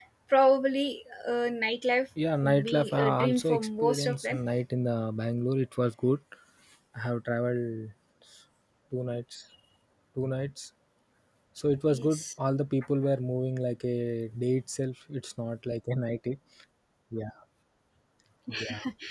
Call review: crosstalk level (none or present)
present